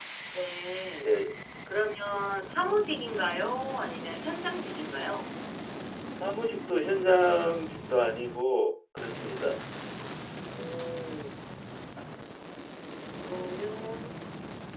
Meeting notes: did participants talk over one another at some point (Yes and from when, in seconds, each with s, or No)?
No